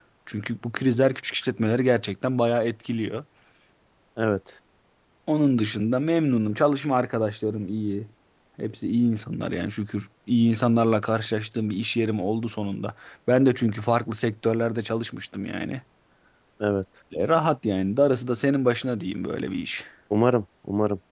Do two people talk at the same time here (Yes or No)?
No